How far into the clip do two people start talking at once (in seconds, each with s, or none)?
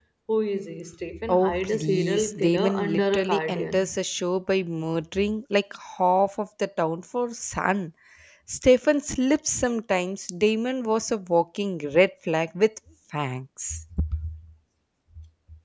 1.3 s